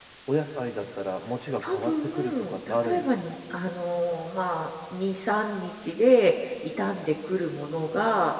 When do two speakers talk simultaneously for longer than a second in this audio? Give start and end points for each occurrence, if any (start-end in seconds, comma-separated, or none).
1.6-3.2